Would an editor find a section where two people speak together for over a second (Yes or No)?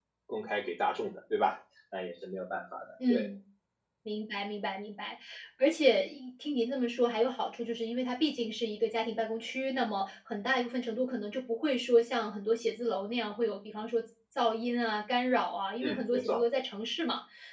No